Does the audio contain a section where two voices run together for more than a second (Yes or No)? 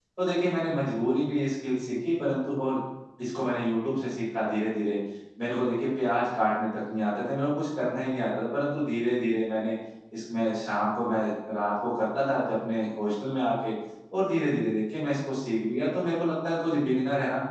No